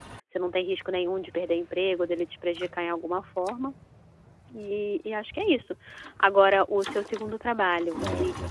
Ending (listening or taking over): listening